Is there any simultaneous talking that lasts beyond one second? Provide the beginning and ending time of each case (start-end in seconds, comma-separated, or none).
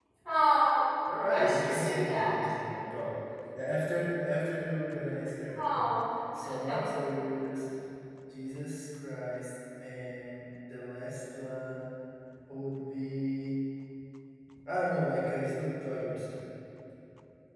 1.3-2.5